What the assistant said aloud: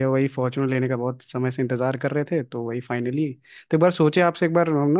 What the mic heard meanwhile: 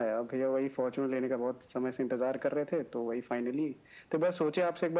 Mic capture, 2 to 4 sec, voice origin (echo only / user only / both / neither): echo only